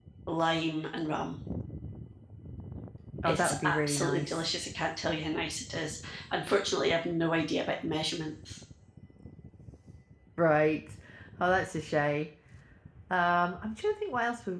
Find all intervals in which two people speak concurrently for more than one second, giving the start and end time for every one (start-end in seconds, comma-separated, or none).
3.2-4.5